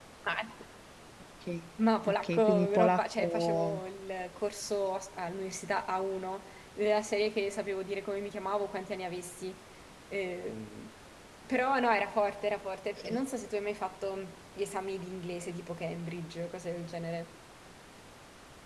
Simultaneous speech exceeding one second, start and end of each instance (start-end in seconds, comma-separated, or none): 2.0-3.8